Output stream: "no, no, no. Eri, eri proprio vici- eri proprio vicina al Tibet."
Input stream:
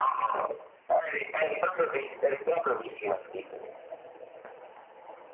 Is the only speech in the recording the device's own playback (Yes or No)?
Yes